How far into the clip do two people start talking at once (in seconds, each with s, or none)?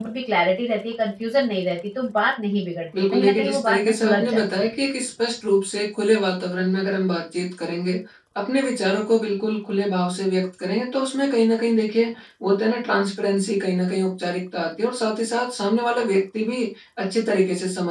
2.9 s